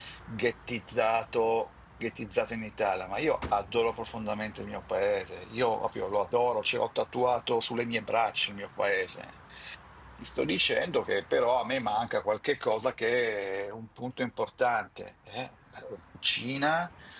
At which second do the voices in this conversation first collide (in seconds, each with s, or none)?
none